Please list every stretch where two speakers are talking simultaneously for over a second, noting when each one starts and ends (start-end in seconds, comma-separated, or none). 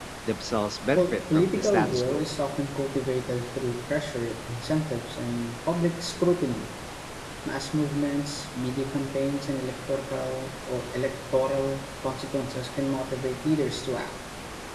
0.9-2.3